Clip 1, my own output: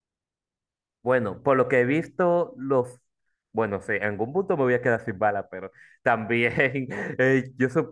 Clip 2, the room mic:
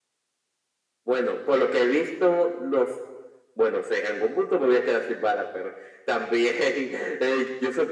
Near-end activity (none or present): none